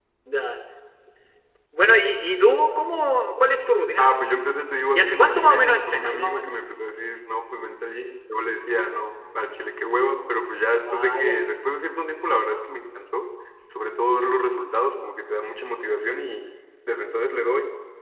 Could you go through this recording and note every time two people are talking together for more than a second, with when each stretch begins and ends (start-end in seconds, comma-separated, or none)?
4.9-6.5